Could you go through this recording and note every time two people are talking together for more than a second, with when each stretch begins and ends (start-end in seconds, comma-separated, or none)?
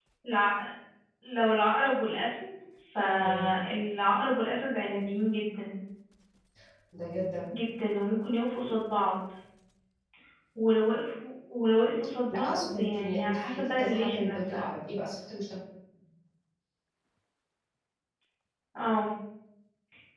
12.3-14.6